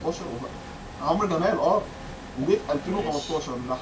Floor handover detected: No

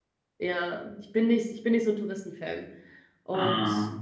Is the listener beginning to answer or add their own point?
No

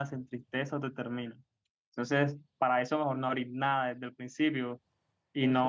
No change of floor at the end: Yes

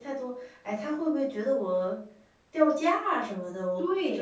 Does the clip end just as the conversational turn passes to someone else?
Yes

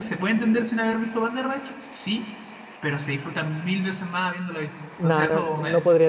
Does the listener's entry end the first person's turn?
Yes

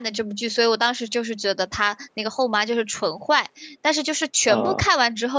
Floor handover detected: No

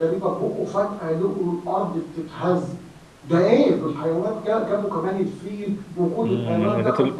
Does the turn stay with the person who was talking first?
No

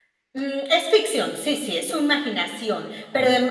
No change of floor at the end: Yes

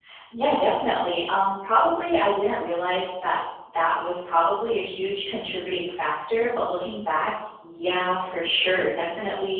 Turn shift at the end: No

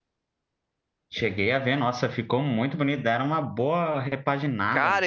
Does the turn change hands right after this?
Yes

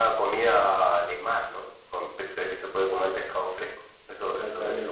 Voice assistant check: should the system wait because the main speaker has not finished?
No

